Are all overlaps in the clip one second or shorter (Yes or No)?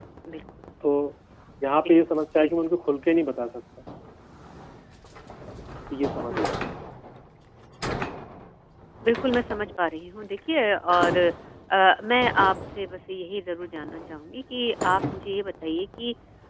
Yes